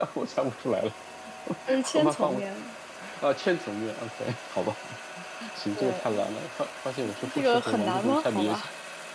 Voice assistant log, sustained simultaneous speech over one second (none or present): present